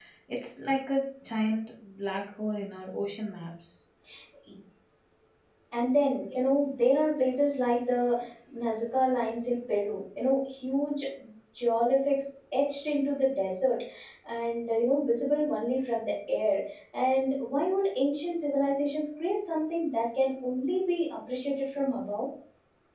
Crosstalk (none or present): none